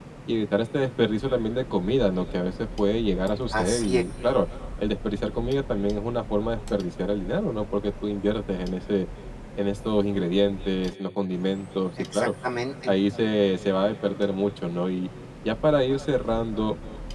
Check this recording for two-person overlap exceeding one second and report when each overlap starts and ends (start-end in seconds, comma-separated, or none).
none